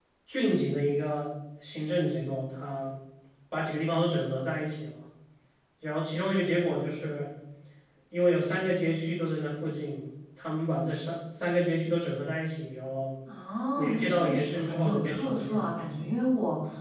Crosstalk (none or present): present